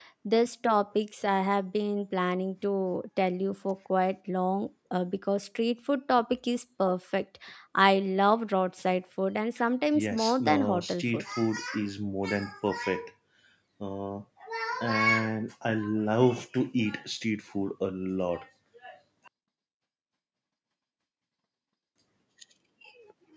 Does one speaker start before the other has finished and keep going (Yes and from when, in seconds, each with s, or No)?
Yes, from 9.9 s